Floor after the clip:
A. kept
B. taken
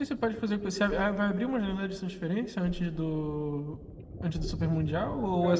B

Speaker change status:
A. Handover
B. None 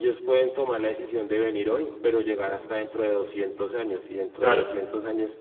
B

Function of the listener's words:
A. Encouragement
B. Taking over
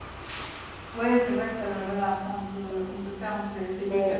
B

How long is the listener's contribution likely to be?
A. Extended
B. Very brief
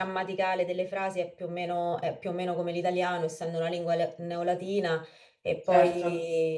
B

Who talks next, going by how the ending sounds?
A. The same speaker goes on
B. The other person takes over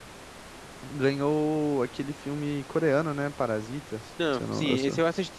B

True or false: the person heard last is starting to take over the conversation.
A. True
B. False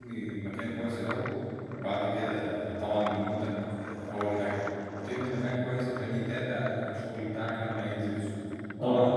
B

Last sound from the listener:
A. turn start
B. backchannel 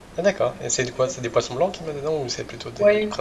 A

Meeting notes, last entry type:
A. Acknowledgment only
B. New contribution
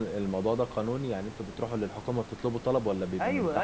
B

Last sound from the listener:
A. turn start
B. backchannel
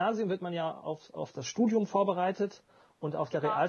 B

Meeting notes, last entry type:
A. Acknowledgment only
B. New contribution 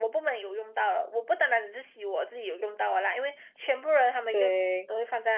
A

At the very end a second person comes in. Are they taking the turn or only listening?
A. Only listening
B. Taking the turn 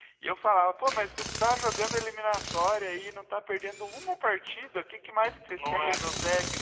A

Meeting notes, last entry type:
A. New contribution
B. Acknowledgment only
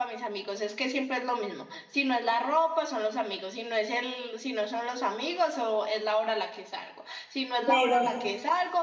B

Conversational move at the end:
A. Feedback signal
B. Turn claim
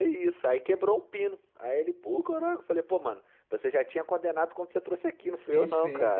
B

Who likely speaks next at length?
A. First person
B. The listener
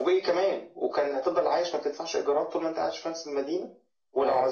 A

